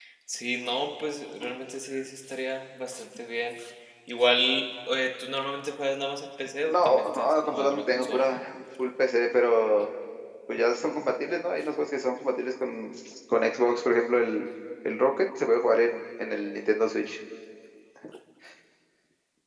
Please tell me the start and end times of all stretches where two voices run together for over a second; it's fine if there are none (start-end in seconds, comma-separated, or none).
6.7-8.3